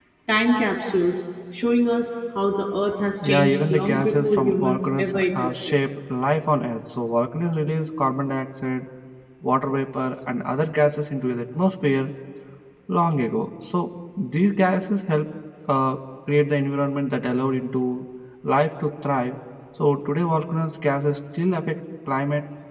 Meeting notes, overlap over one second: present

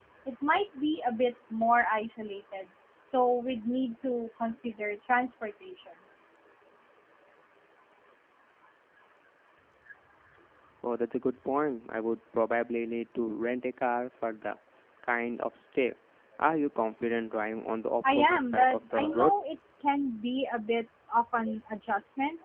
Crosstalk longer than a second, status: present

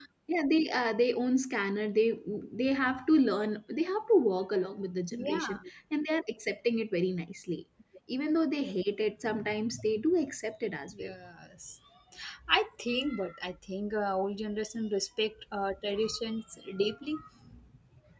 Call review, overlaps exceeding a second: none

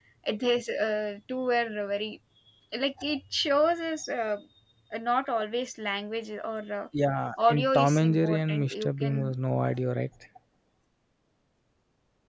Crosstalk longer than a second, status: present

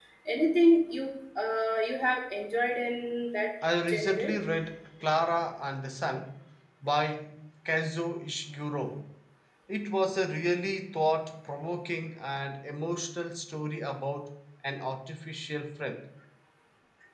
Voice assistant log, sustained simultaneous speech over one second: none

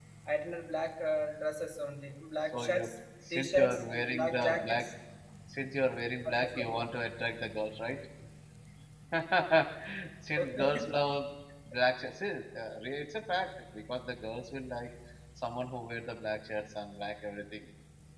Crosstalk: present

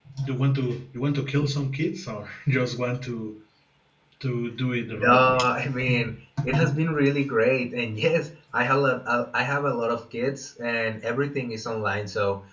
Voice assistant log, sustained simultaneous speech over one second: none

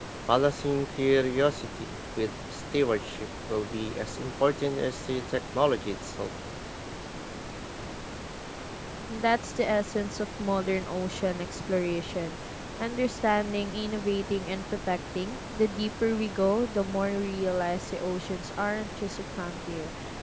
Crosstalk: none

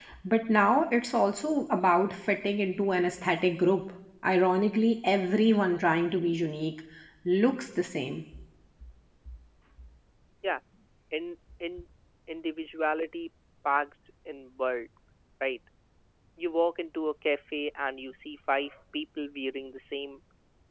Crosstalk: none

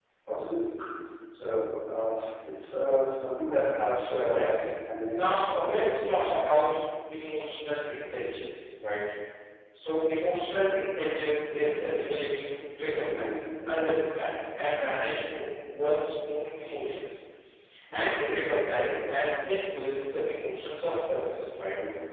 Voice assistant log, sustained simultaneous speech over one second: present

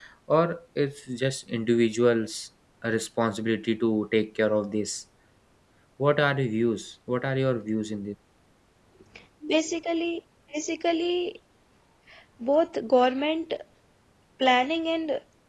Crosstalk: none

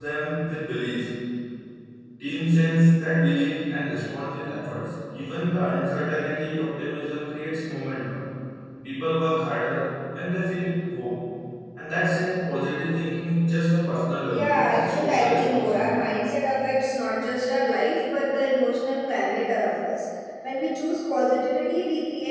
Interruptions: present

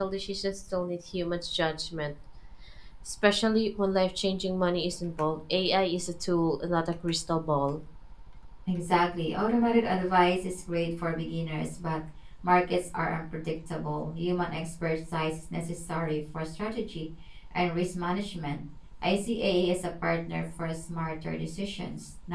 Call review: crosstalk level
none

